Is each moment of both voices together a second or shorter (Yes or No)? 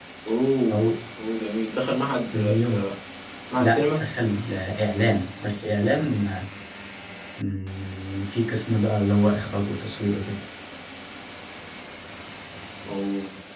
Yes